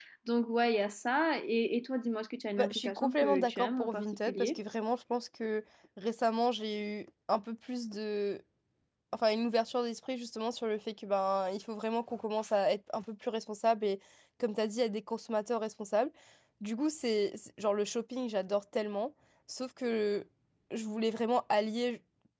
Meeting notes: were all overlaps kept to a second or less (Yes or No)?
No